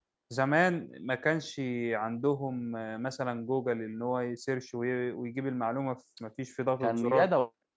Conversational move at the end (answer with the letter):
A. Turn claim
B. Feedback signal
A